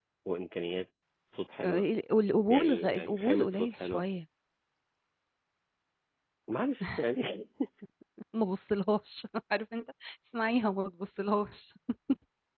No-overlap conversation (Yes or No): No